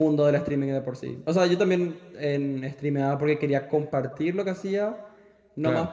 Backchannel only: Yes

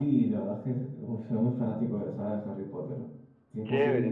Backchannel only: No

